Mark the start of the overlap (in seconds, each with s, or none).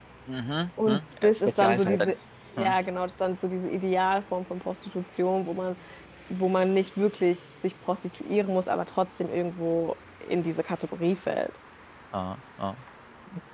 0.9 s